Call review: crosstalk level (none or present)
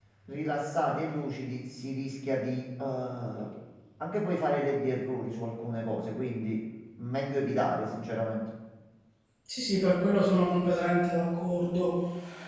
none